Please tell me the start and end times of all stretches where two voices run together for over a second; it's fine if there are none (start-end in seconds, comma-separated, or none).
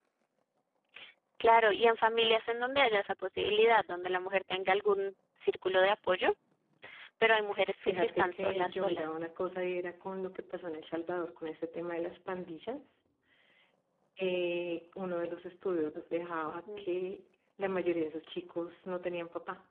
7.8-9.1